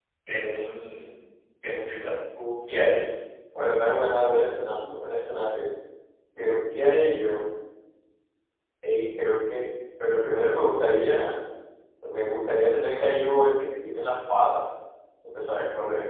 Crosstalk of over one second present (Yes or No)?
No